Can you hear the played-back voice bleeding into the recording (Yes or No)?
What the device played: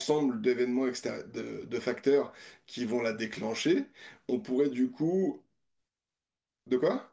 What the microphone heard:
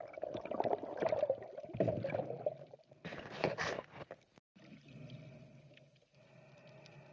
No